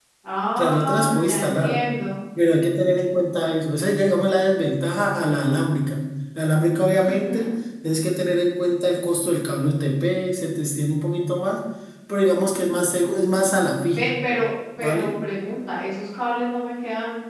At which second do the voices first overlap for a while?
0.6 s

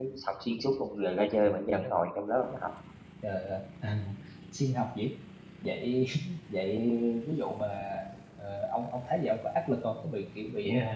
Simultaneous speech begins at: none

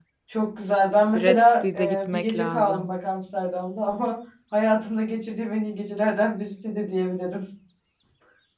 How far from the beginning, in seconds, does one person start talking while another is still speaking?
1.1 s

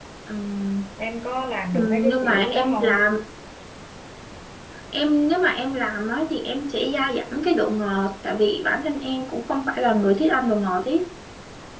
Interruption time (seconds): 1.7 s

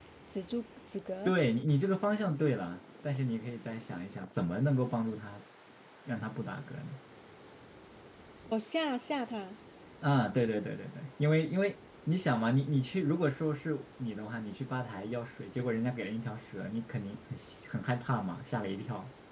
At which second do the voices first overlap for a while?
none

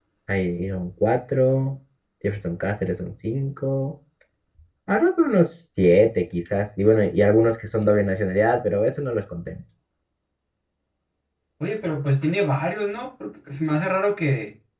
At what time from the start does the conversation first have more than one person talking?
none

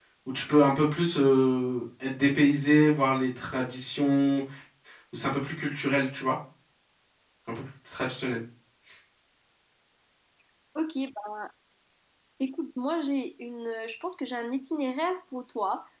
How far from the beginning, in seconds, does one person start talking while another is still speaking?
none

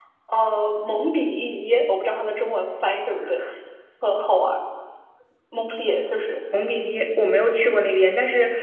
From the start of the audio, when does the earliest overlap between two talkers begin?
none

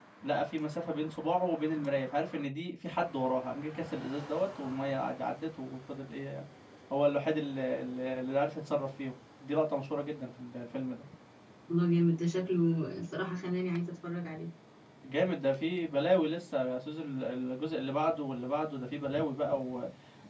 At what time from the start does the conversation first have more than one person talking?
none

